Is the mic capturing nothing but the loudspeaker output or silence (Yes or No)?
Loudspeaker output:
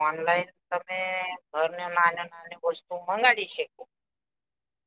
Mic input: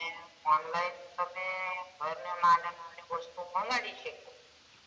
Yes